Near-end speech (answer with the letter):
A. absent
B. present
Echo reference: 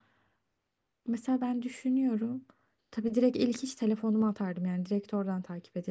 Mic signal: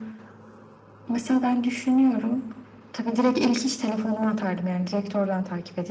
A